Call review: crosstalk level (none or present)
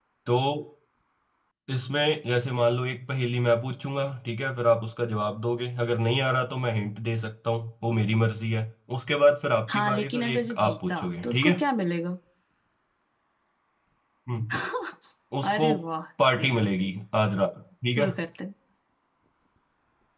present